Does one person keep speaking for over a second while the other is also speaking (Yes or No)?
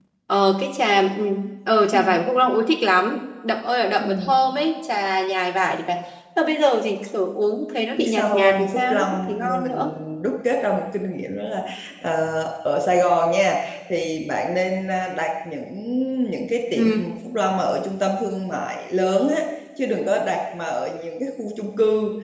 Yes